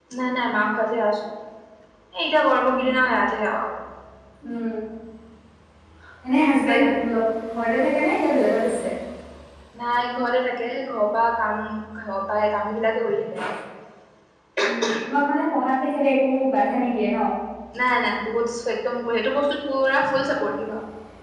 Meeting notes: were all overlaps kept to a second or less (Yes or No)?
Yes